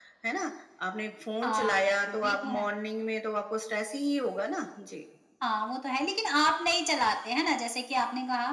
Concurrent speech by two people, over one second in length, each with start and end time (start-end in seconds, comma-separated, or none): 1.4-2.7